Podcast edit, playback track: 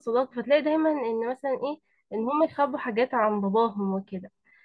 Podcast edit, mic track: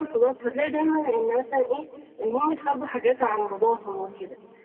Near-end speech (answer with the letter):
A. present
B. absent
B